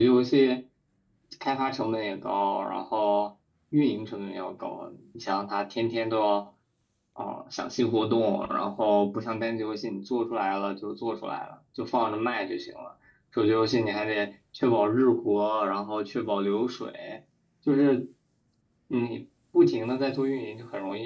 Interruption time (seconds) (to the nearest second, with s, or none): none